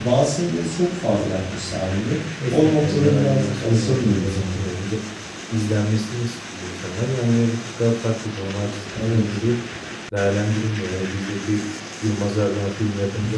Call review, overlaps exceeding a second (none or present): present